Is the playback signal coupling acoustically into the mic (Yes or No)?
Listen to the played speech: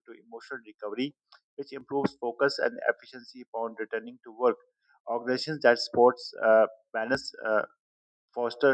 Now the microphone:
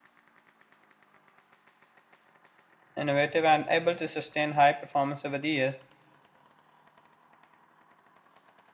No